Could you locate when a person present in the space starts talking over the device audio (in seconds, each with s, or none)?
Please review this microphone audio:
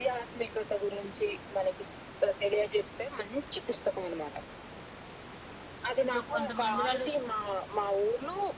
6.1 s